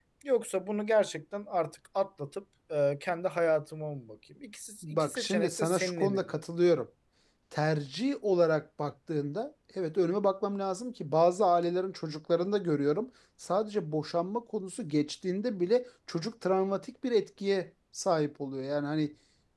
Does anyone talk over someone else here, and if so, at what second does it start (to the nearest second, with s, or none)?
5 s